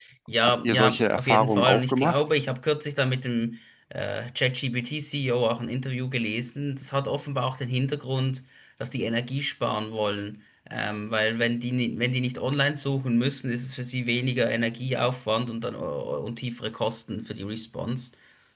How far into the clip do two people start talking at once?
1 s

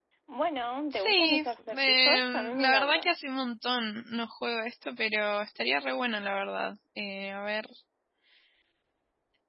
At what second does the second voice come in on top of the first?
1 s

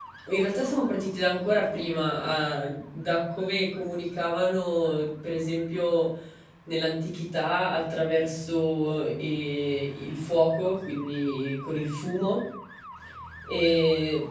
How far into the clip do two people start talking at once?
none

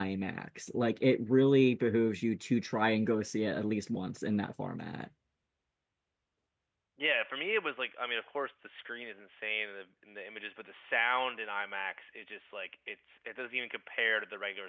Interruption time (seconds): none

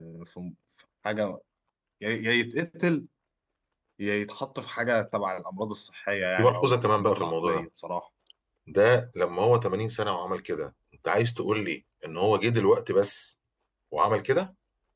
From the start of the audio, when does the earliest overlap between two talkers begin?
6 s

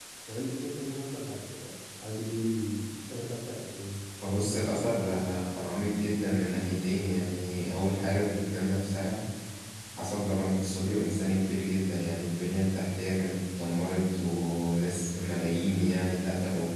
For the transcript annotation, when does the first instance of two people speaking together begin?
none

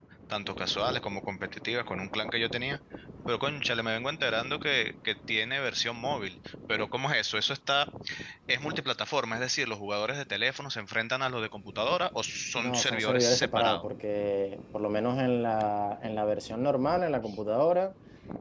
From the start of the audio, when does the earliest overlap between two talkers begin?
13 s

